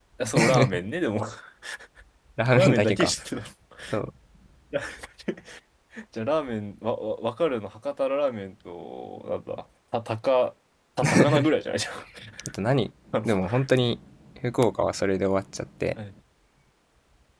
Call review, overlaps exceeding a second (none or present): none